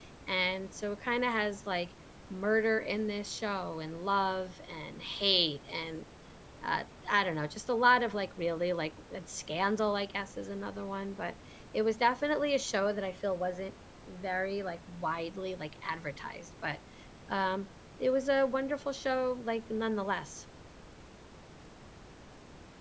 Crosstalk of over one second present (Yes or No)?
No